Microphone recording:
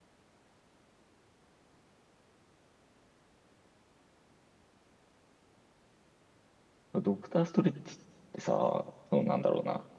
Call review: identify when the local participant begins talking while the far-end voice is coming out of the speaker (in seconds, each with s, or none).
6.9 s